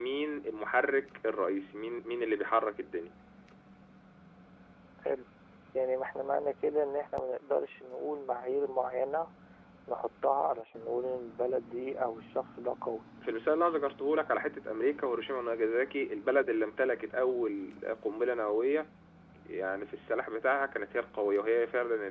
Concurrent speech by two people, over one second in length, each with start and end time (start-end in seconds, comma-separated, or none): none